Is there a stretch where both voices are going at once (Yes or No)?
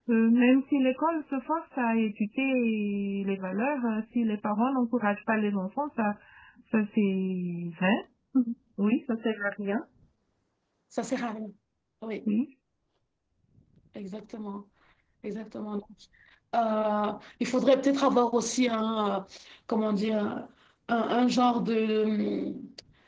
No